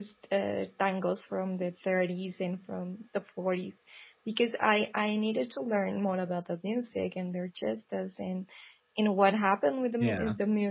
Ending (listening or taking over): listening